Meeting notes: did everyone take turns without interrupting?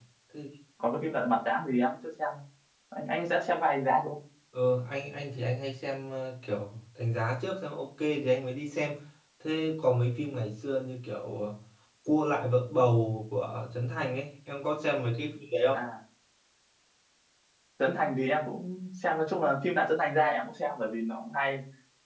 Yes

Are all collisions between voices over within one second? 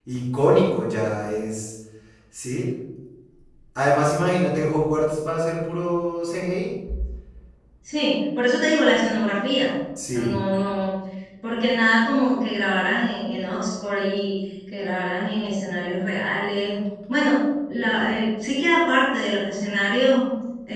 Yes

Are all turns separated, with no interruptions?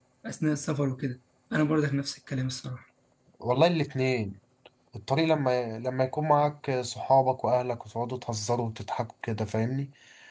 Yes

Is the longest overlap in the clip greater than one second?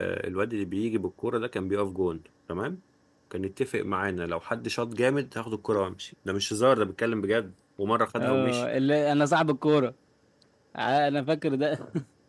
No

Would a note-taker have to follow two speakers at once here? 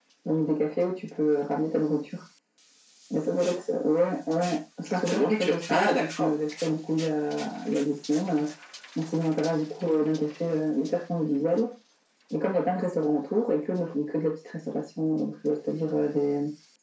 Yes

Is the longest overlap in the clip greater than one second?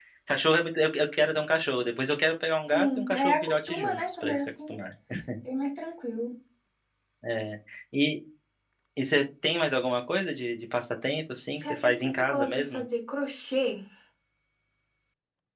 Yes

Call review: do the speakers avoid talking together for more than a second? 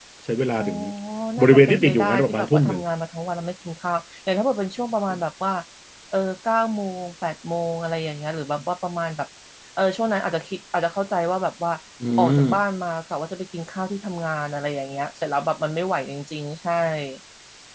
No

